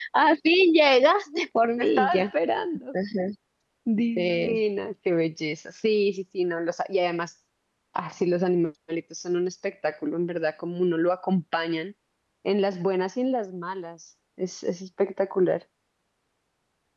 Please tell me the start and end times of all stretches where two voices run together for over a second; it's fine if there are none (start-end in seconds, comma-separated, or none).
none